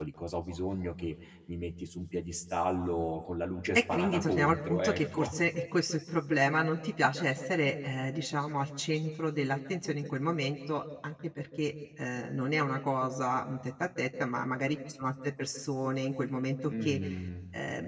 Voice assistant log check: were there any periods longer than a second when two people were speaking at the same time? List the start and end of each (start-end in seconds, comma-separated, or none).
3.8-5.3